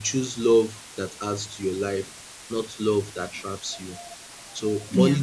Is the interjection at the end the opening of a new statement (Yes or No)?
No